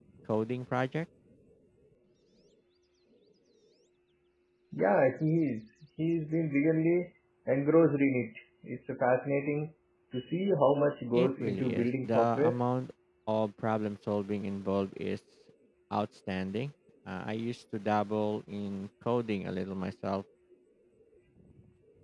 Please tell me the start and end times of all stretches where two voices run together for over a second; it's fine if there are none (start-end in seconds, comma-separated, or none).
11.1-12.6